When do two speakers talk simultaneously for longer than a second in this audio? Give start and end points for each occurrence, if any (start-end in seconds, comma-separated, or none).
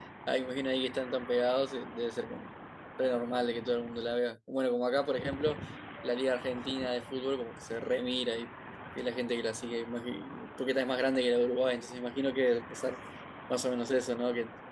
none